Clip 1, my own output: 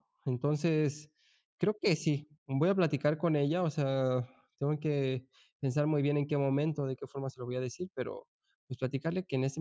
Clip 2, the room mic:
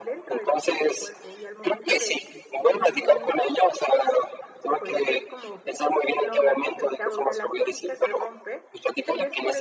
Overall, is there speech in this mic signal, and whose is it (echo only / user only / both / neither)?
both